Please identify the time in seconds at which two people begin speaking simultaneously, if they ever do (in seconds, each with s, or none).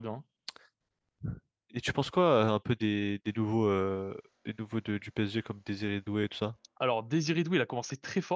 none